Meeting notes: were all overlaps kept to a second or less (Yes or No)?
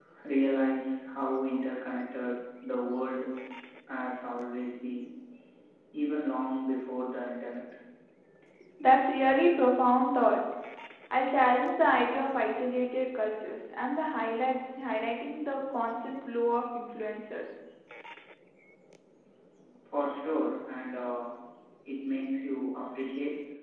Yes